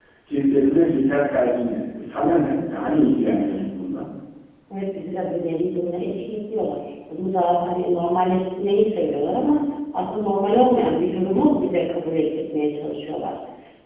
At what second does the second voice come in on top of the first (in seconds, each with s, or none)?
none